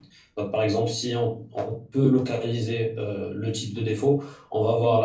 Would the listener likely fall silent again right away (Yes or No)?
Yes